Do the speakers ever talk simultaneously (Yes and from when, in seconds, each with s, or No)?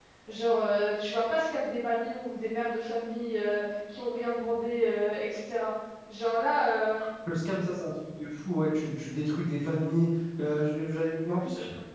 No